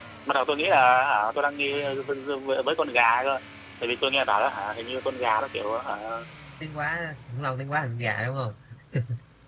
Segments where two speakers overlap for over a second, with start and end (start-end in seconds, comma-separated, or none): none